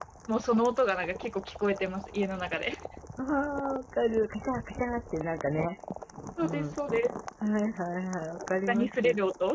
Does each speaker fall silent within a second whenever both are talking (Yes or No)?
Yes